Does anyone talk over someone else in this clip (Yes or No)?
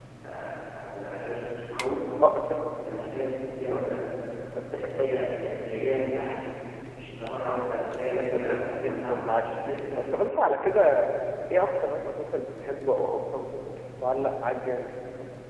Yes